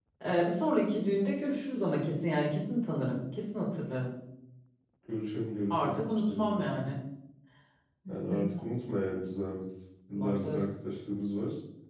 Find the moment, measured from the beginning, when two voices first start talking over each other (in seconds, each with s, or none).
5.7 s